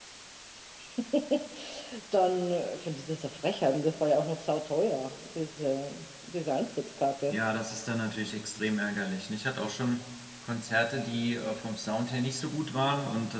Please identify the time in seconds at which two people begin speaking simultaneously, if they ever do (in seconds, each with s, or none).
none